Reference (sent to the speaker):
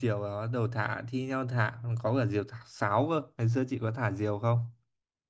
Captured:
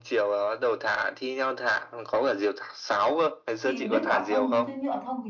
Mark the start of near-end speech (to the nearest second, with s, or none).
4 s